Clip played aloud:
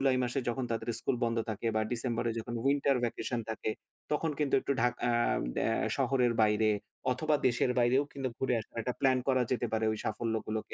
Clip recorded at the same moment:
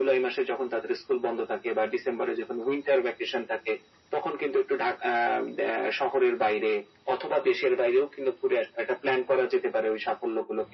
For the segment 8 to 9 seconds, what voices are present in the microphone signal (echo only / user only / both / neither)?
echo only